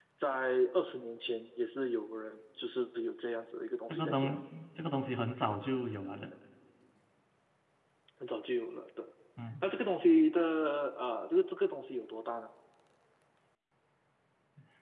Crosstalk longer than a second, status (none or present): none